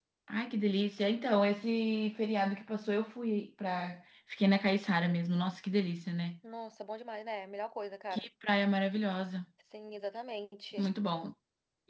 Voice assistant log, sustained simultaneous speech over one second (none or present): none